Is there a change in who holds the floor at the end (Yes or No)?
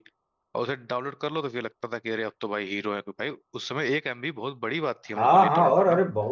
Yes